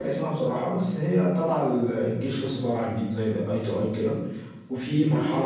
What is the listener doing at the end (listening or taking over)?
listening